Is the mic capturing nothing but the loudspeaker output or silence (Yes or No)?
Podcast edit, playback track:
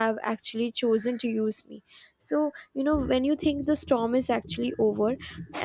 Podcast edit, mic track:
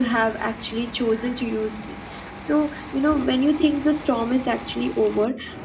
Yes